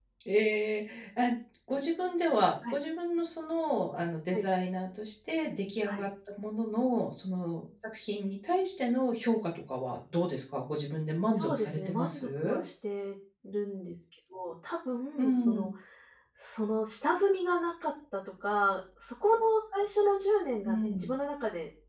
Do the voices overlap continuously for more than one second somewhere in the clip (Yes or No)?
Yes